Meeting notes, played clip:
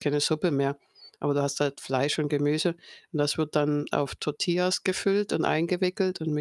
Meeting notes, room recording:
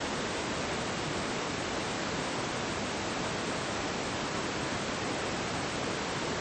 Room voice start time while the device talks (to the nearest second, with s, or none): none